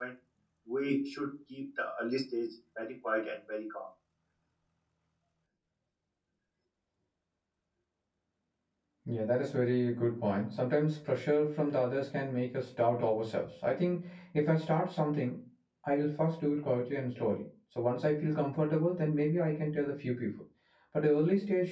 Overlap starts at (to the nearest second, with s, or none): none